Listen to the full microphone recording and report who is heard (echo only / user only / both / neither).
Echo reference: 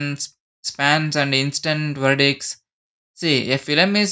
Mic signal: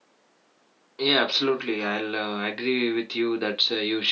user only